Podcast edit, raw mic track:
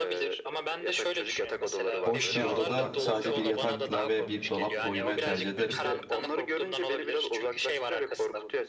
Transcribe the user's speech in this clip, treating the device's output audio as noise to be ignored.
Boş bir odada sadece bir yatakla ve bir dolapla uyumaya tercih ederim.

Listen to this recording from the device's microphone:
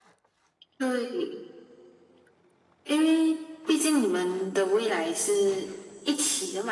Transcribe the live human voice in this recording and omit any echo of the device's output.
none

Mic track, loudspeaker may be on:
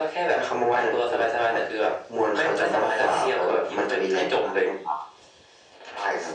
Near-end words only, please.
none

